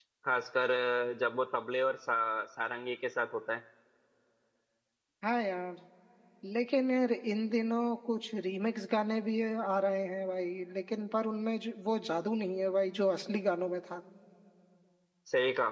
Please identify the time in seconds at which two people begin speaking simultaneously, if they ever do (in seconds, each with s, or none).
none